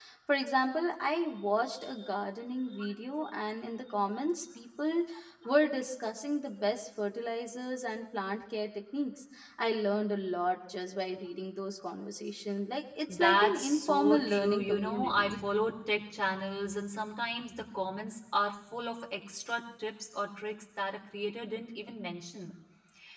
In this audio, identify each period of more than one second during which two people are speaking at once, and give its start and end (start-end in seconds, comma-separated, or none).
13.1-15.4